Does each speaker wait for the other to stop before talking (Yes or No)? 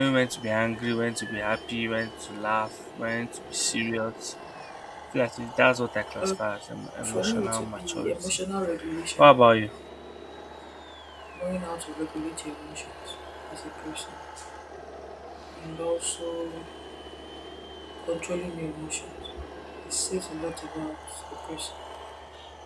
No